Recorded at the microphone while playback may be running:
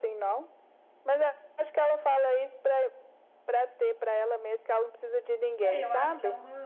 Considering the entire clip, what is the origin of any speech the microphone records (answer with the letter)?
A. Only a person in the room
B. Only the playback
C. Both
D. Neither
C